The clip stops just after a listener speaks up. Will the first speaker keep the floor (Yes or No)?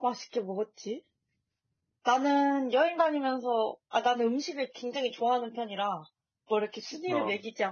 Yes